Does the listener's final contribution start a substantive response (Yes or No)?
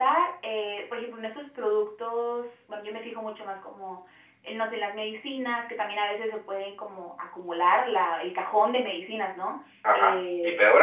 Yes